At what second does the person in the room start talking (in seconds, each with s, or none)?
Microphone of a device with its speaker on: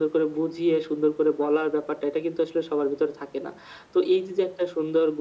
none